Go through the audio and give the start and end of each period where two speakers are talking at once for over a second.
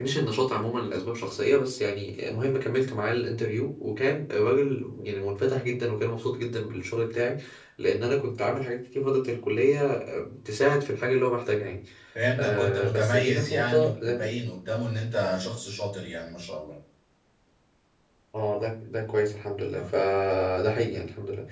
12.4-14.3

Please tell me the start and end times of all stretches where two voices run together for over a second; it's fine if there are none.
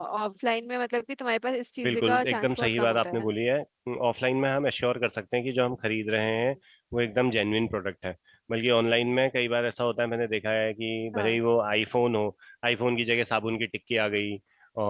1.8-3.3

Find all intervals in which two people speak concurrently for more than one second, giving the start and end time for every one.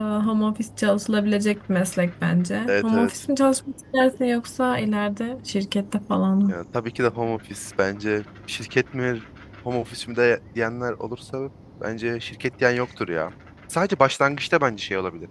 none

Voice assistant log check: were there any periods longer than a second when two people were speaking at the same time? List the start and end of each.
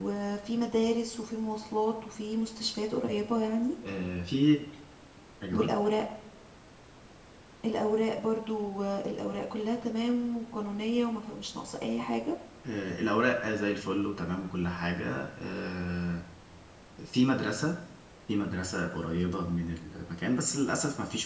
none

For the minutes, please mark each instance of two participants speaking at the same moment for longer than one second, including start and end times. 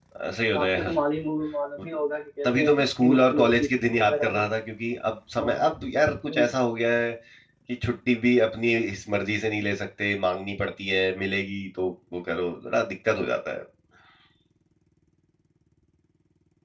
2.4-4.5

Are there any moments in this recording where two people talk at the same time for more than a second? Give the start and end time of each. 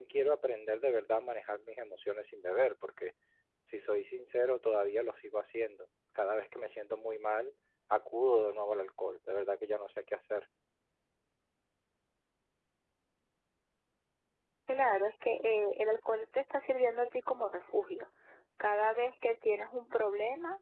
none

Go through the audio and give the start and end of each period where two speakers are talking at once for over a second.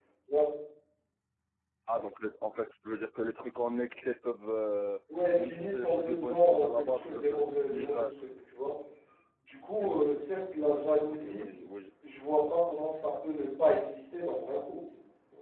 5.4-8.1

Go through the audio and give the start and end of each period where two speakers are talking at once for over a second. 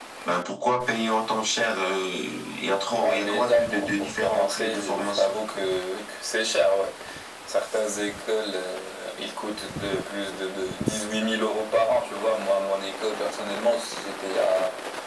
2.9-5.4

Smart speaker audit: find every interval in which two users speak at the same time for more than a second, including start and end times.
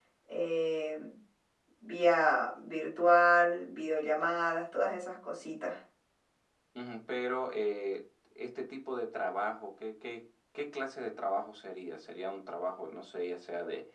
none

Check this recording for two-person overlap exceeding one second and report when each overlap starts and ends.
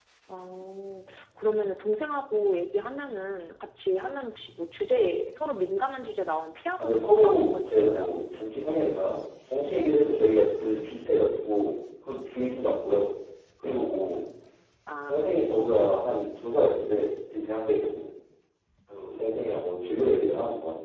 6.8-8.1

